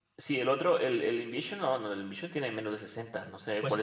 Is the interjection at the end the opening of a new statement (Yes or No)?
Yes